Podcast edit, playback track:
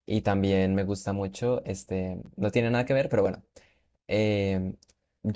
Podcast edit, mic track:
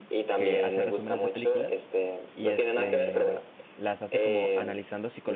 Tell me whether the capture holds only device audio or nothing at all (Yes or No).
No